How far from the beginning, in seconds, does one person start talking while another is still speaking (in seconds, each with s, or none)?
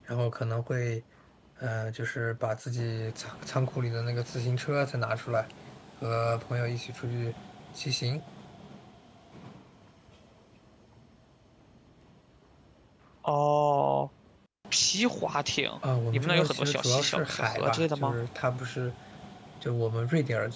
16.1 s